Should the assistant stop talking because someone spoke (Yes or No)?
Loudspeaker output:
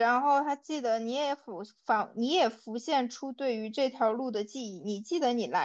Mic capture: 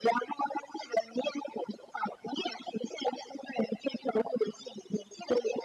No